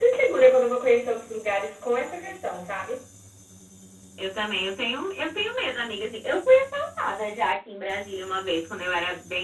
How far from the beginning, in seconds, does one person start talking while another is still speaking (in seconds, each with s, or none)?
none